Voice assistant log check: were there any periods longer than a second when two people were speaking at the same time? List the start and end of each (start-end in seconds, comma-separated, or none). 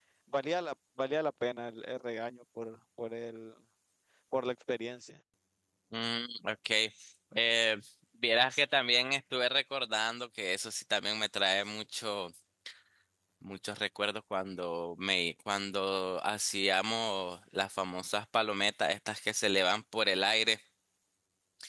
none